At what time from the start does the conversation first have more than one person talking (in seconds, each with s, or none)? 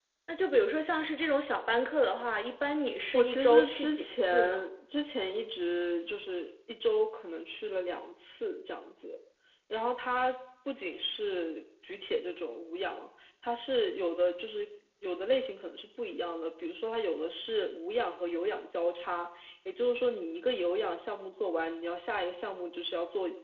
3.1 s